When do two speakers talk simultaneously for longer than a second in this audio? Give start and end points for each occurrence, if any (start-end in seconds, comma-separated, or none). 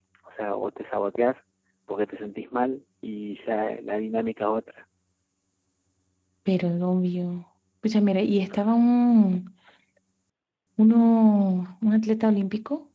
none